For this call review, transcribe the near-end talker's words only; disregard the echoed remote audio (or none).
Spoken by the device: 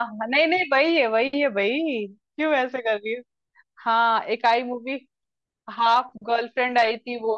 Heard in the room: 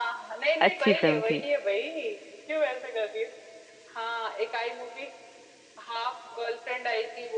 अच्छी फिल्म थी